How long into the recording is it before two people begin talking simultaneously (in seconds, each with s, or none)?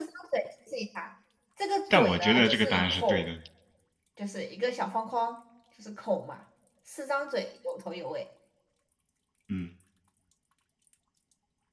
1.9 s